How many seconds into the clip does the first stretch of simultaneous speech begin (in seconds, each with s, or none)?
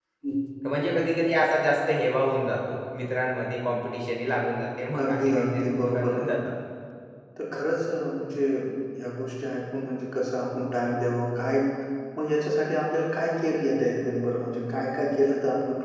5.0 s